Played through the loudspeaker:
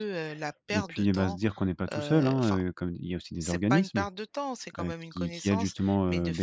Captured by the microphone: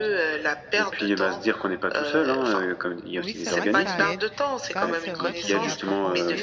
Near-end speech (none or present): present